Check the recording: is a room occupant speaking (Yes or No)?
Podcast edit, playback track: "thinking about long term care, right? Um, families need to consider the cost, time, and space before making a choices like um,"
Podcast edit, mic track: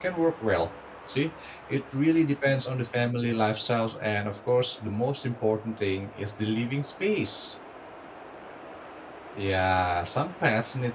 Yes